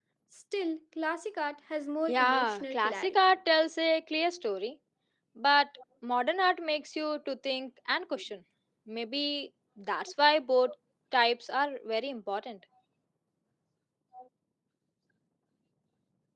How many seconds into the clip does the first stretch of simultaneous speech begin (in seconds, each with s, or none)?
2.1 s